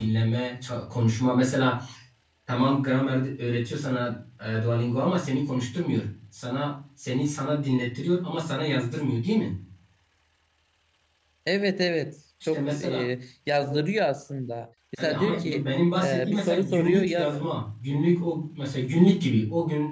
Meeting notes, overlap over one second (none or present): present